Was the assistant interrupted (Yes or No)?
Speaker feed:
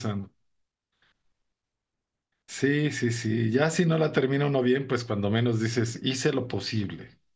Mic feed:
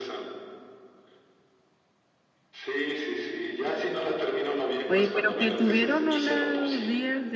Yes